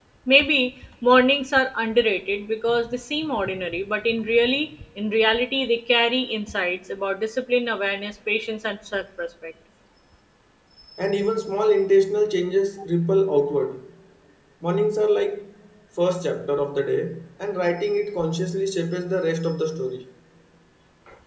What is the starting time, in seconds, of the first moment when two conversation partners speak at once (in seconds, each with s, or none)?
none